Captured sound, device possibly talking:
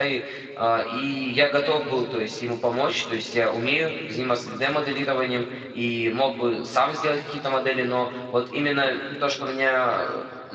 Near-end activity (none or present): present